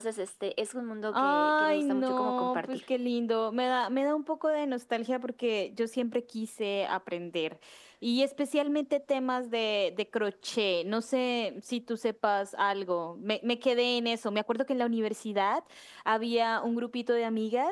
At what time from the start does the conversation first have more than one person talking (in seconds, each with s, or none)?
1.1 s